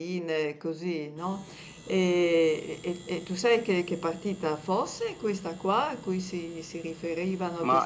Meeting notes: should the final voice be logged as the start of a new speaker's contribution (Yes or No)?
Yes